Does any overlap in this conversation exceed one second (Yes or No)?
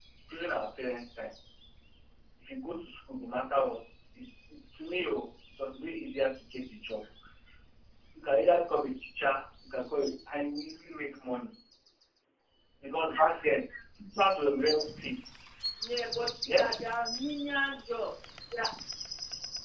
No